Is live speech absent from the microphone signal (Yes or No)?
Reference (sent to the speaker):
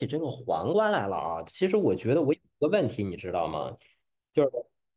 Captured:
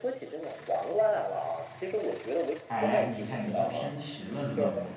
No